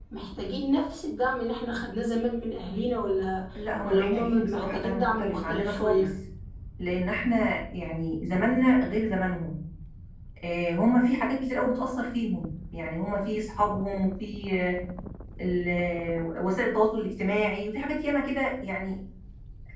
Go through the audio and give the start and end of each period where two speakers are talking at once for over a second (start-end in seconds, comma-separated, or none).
3.8-6.1